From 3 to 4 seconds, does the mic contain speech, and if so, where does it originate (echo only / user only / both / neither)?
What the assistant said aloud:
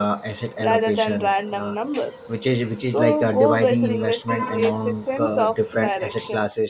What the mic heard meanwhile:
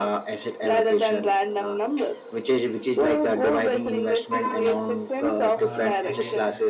echo only